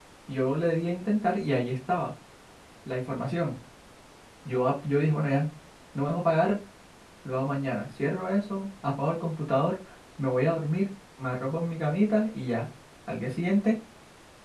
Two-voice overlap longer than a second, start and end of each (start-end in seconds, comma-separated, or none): none